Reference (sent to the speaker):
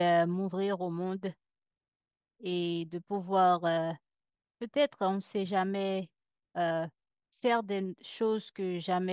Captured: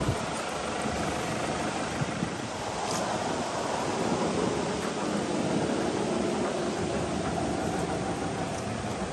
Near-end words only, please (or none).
none